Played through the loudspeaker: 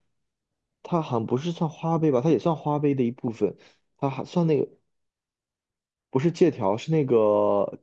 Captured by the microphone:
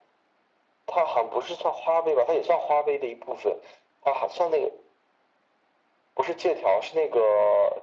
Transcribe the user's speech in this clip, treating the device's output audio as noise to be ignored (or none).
none